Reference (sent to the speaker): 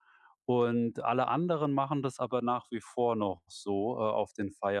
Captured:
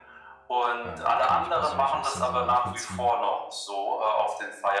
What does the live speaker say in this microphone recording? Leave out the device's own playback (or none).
Ähm, kann ich persönlich auch sehr, sehr nachvollziehen.